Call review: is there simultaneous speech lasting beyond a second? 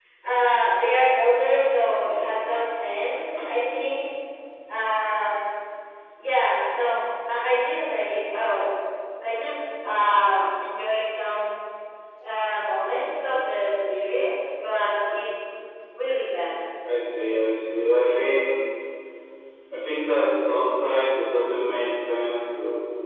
No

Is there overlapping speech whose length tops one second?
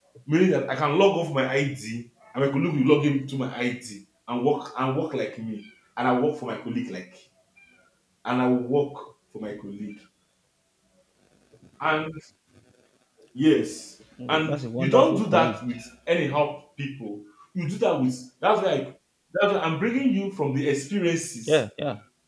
Yes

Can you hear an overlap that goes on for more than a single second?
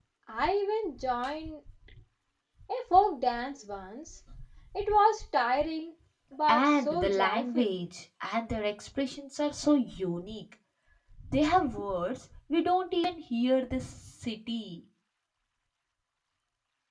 Yes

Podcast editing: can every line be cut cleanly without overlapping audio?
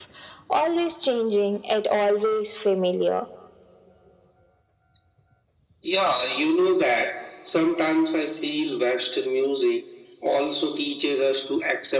Yes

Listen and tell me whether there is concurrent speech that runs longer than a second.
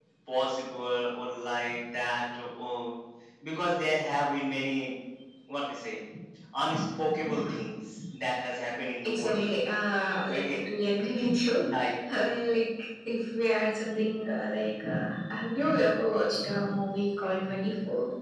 No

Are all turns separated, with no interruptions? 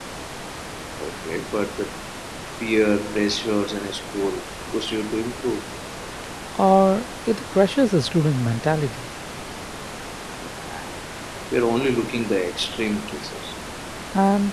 Yes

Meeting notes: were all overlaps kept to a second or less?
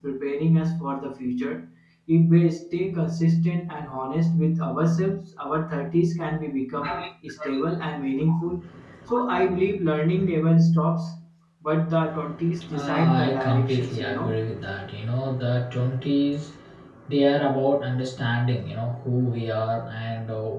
No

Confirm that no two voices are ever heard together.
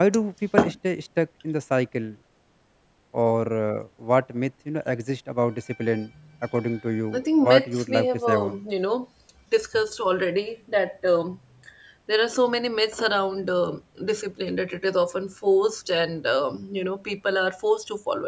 No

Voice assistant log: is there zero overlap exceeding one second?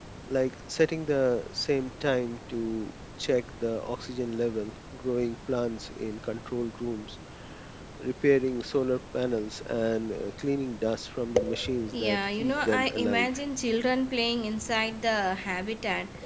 No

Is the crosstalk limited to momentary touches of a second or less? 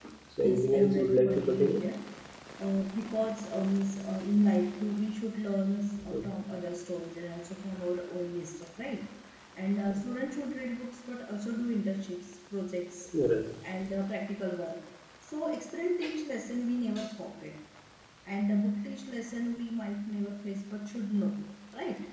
No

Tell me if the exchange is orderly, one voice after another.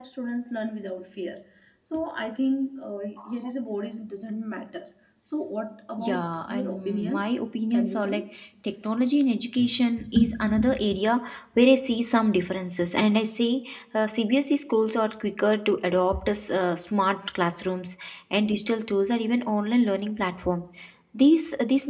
No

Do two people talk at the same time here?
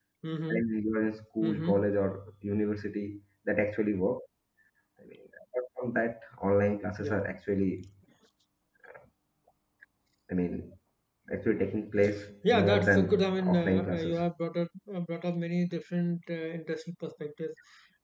Yes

